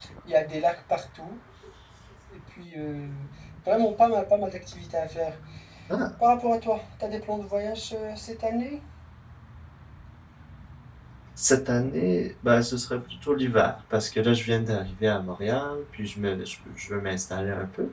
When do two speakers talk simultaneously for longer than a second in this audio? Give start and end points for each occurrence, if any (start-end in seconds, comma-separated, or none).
none